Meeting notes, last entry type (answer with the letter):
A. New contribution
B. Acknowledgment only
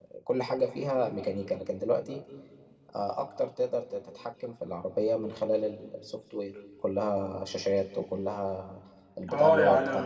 B